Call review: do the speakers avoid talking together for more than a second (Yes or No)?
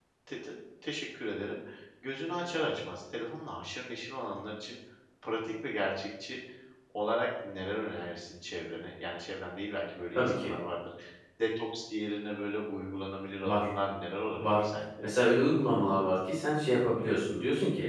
Yes